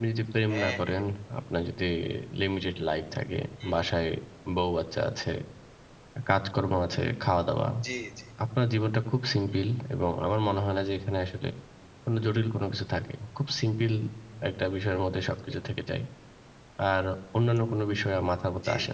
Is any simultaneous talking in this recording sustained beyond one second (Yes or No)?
No